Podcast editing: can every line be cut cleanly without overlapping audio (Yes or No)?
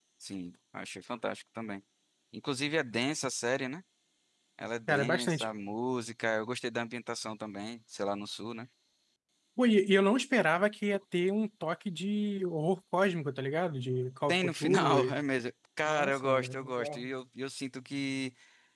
No